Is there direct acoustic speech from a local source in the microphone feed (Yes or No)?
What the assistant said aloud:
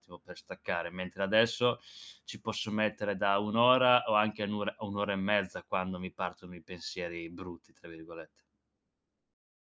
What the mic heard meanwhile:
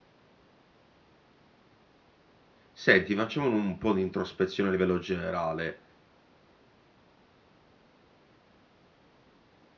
Yes